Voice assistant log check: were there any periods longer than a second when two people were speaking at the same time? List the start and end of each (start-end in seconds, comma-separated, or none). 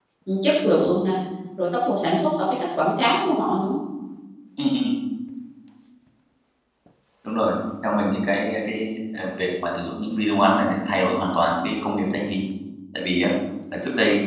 none